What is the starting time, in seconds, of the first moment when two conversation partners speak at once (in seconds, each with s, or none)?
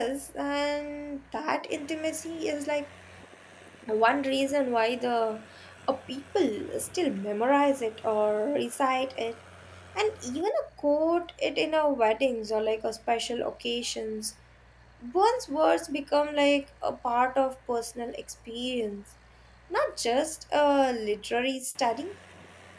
none